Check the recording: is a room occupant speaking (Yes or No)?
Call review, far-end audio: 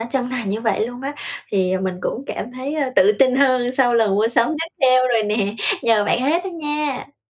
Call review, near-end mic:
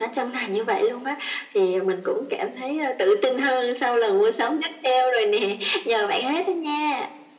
No